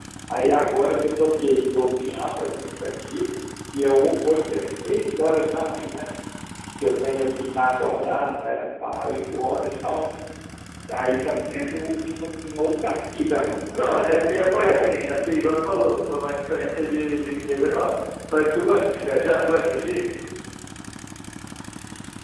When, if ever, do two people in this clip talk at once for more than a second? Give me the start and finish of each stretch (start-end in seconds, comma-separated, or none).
13.7-14.9